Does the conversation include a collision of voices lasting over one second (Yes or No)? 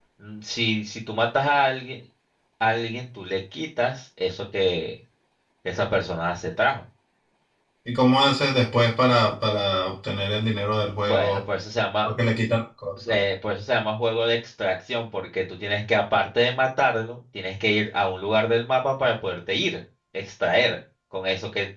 No